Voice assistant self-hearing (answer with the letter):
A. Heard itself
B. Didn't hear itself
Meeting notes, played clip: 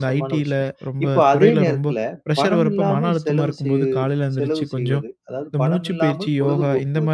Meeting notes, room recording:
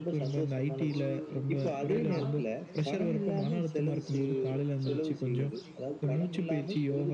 A